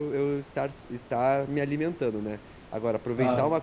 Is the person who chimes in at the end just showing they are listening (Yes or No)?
Yes